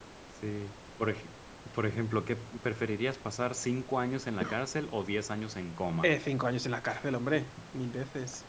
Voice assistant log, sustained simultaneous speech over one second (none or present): none